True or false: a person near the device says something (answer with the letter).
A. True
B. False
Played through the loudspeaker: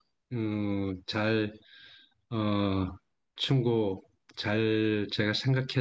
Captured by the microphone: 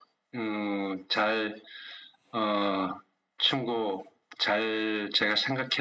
B